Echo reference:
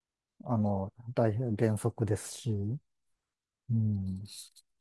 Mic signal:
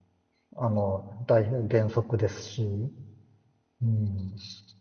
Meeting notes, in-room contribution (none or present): none